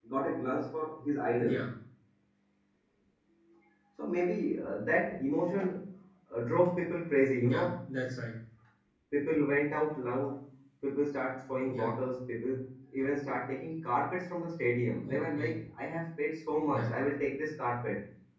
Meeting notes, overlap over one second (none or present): none